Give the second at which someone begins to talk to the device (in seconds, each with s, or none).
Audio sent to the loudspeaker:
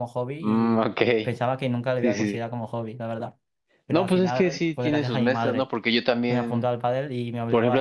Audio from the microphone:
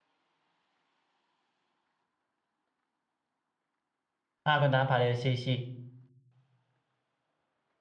4.4 s